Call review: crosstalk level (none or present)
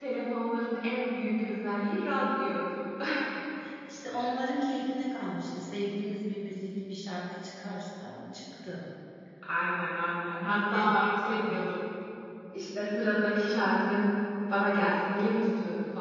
present